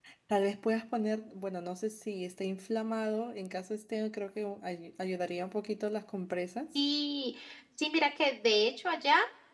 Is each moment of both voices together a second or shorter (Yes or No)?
Yes